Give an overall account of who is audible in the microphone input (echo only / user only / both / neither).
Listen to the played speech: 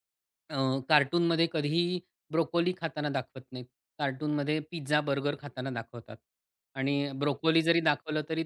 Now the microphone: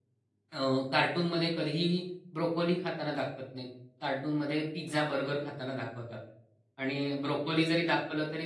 echo only